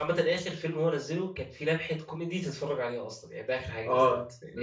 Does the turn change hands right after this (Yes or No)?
Yes